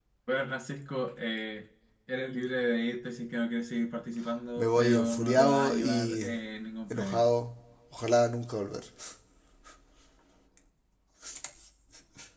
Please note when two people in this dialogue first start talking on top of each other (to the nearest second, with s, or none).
5 s